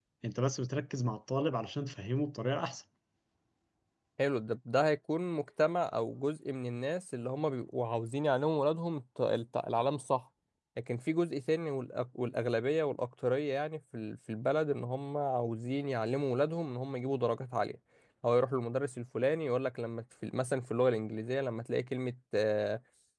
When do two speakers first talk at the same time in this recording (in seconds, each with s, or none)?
none